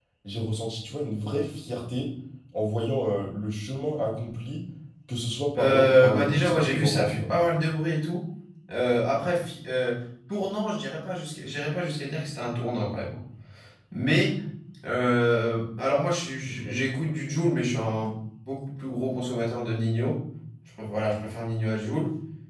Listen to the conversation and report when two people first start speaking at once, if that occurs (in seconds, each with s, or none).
5.6 s